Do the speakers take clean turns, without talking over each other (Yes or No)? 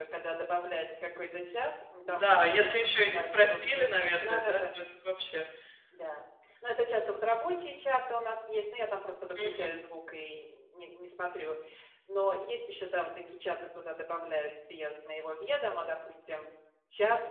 No